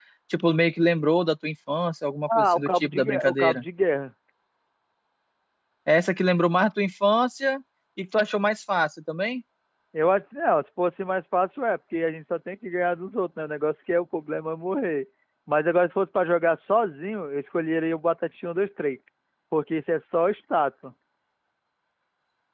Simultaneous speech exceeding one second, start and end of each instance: 2.4-3.6

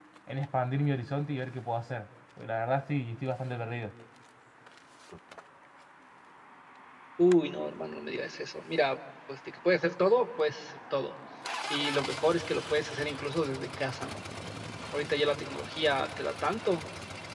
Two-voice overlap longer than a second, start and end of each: none

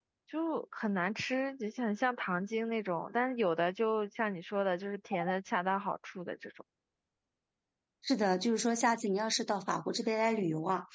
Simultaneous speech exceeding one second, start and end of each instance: none

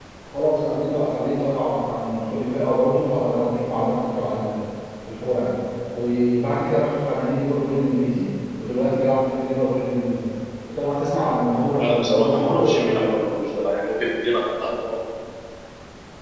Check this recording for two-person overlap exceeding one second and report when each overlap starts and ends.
11.8-13.0

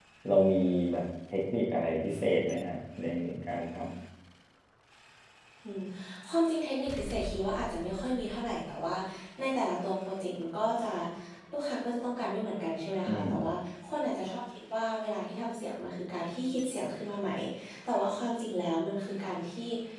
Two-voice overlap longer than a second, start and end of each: none

